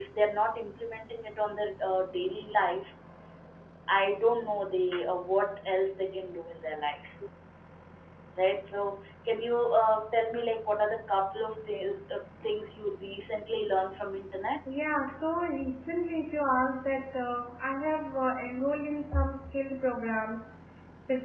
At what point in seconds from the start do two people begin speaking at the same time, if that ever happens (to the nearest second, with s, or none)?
none